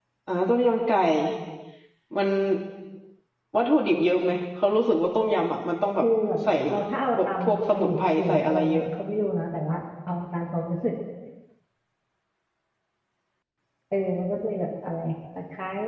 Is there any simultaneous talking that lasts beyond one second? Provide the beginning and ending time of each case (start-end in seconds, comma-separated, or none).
7.2-8.8